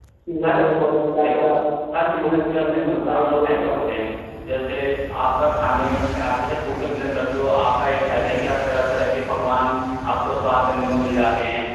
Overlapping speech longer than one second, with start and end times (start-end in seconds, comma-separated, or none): 2.2-4.1